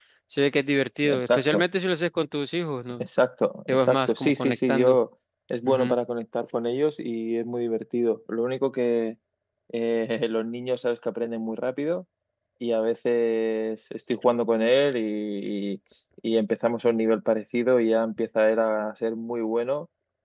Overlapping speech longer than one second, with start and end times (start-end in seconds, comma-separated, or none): 3.7-5.0